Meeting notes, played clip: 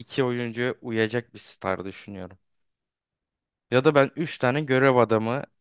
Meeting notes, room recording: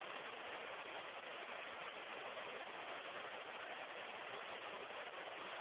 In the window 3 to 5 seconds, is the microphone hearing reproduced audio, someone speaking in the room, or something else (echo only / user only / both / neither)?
neither